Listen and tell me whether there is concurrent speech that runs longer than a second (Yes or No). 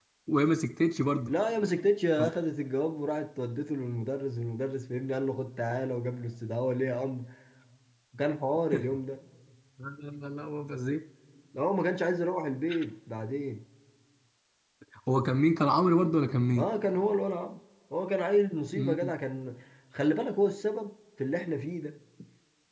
No